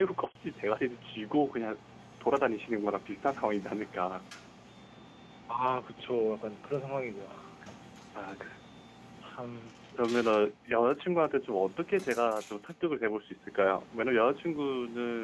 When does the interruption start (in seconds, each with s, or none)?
none